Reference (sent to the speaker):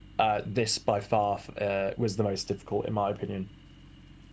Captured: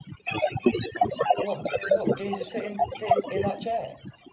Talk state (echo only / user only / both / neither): both